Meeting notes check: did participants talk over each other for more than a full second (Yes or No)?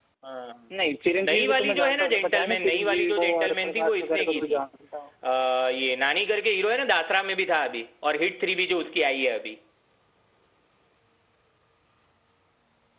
Yes